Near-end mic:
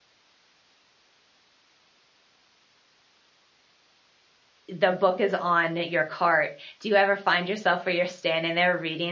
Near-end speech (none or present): present